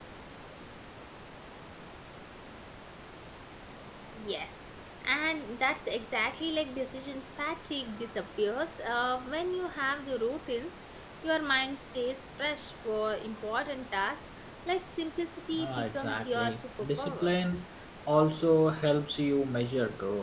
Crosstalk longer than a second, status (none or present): present